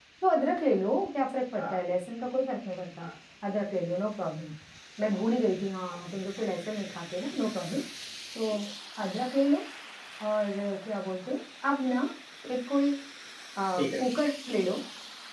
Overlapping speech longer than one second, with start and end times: none

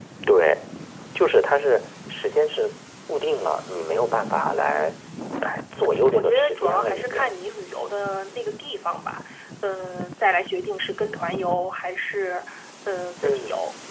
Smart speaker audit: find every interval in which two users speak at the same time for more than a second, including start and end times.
5.7-7.2

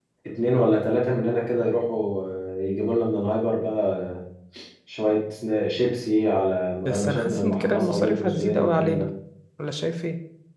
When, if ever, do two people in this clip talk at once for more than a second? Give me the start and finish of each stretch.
6.8-9.1

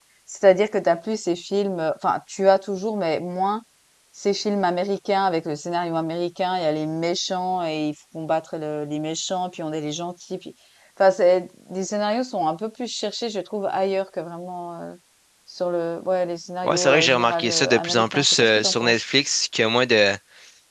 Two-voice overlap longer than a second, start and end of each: 16.6-19.0

